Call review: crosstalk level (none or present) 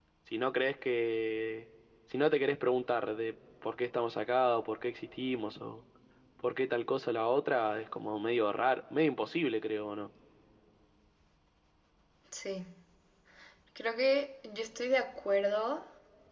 none